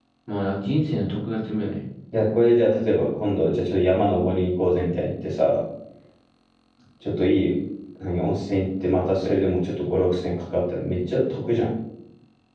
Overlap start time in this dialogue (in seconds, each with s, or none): none